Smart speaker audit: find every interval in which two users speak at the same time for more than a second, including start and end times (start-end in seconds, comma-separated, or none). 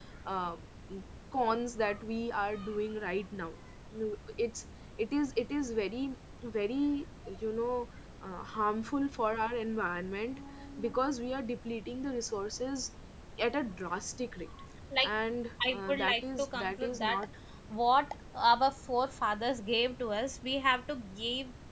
15.7-17.2